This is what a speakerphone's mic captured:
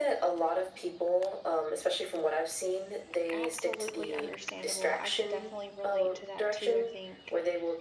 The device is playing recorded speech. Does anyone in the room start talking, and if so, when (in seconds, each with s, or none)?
3.3 s